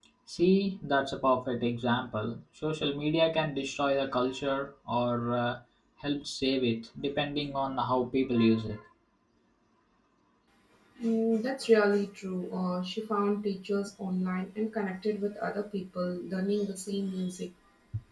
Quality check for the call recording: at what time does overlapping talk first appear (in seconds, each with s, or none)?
none